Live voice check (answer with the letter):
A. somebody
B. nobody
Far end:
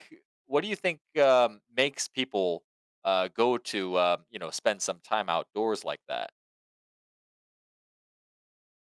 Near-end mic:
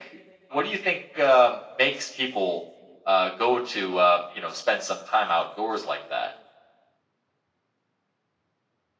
B